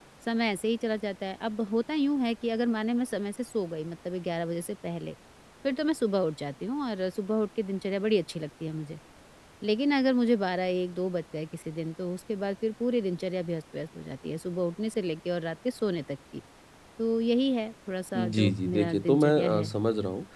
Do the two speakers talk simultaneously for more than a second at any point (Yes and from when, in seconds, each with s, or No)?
Yes, from 18.1 s